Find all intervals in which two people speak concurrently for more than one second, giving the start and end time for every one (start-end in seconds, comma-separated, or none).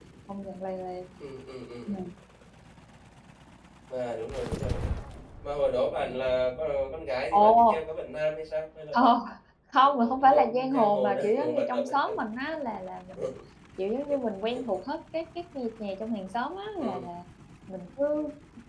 9.8-12.2